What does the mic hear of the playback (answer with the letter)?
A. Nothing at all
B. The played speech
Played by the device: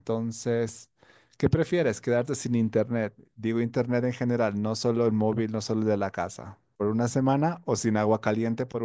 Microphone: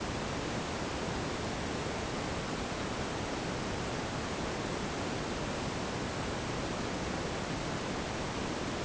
A